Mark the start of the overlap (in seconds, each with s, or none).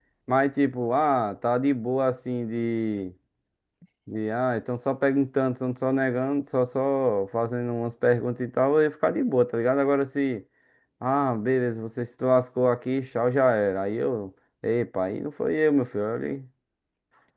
none